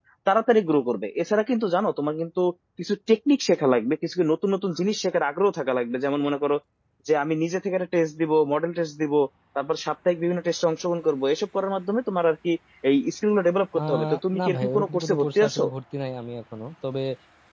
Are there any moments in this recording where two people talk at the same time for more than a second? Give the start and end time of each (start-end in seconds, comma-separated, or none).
13.9-15.6